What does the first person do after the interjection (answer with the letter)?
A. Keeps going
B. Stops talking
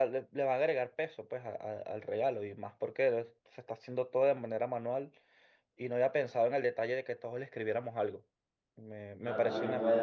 B